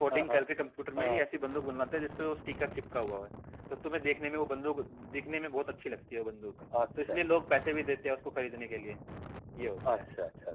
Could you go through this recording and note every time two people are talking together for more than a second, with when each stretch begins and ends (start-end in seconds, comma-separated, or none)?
none